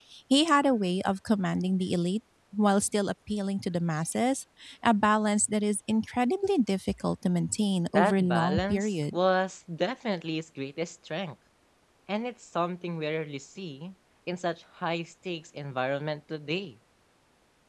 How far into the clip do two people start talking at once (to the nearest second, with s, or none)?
8 s